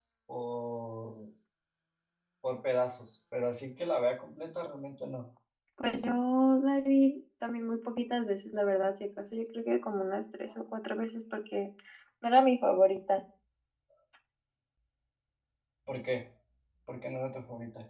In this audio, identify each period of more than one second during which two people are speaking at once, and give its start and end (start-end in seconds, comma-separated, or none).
none